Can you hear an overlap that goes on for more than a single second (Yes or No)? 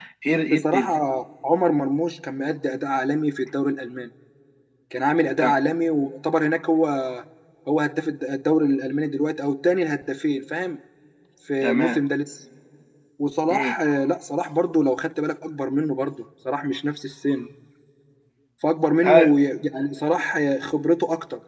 No